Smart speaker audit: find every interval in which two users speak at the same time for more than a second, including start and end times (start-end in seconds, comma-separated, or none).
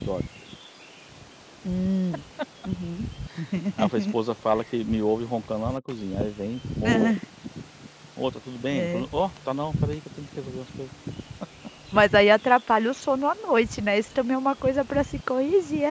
none